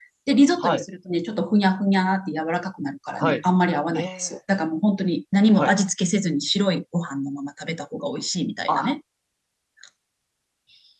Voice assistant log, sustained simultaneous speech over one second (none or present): none